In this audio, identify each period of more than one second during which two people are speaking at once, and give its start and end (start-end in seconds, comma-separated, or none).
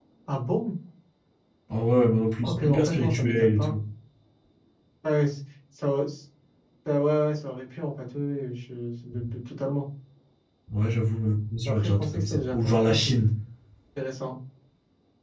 2.4-3.7, 11.6-13.1